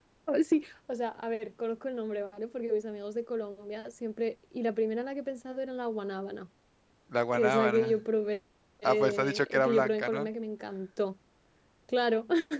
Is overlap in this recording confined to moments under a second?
No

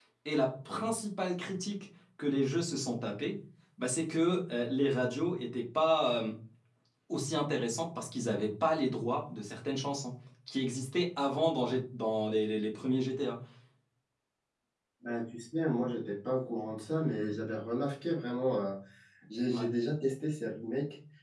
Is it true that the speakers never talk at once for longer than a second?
Yes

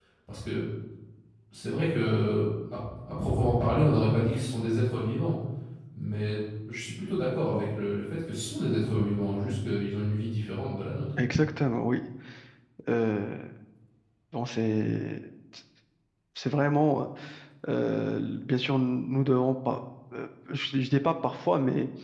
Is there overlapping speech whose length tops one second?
No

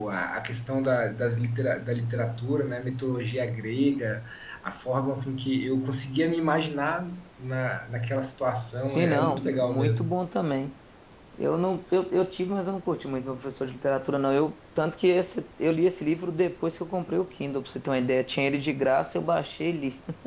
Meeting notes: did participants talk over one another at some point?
Yes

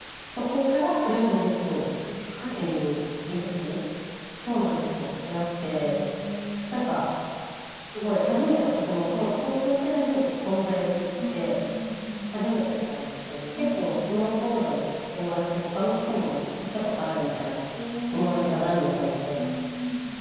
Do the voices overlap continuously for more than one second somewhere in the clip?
No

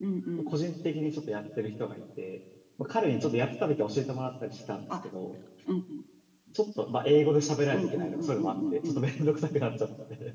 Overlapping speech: Yes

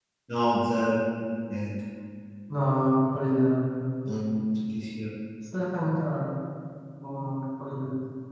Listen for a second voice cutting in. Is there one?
No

